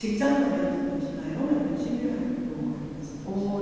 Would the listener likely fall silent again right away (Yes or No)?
No